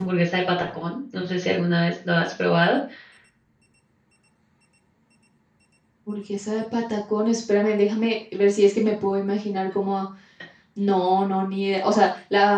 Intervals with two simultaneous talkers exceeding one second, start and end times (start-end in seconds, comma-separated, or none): none